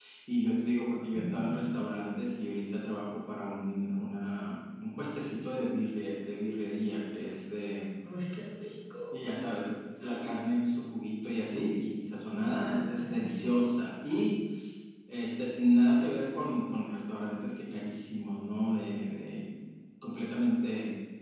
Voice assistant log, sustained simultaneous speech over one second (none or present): none